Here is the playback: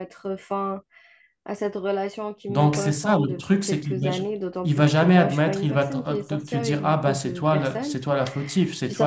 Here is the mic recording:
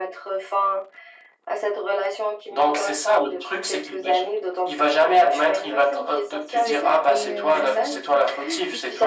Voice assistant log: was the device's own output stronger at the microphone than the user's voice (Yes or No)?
Yes